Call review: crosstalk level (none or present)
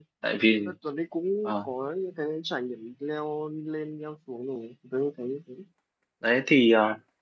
none